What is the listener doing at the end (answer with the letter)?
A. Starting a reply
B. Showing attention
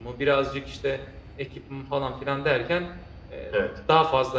B